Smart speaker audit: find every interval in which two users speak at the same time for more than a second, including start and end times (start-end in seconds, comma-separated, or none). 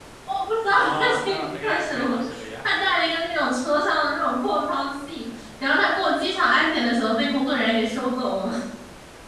0.7-2.2